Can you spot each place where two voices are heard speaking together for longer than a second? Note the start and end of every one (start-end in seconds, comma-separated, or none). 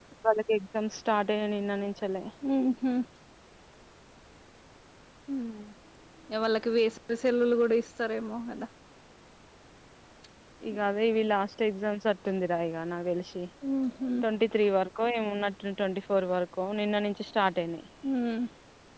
none